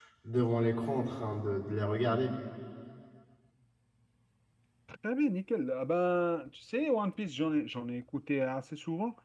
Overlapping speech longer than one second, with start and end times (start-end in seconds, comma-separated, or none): none